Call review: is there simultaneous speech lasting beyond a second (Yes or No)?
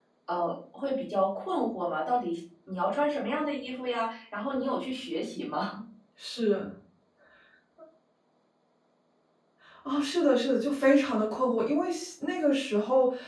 No